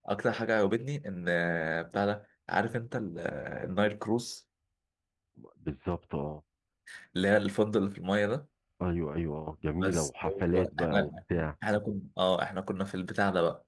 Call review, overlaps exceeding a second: present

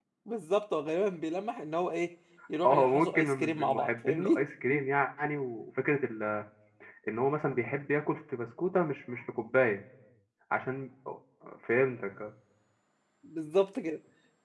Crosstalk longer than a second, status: present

